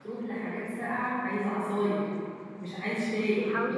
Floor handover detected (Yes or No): Yes